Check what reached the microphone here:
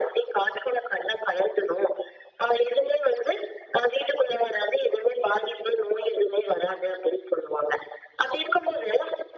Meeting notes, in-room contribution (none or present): none